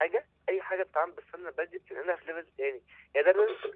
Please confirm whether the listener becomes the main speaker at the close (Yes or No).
No